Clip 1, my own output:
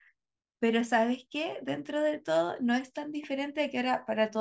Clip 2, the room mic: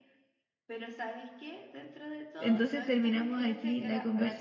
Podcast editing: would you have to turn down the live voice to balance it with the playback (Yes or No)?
Yes